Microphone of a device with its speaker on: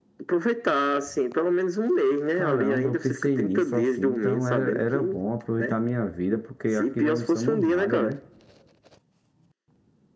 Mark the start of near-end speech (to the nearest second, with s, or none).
2 s